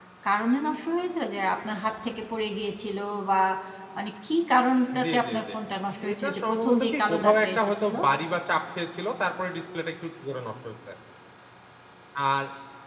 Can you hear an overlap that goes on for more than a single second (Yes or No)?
Yes